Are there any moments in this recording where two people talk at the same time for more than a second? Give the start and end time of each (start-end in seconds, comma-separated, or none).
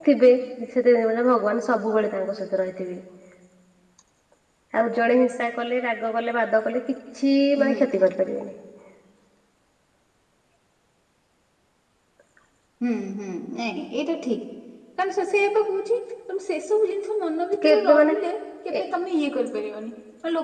none